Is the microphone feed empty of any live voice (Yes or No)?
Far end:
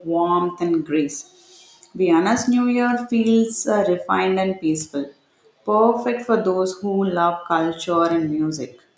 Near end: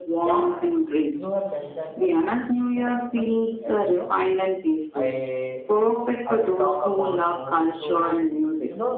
No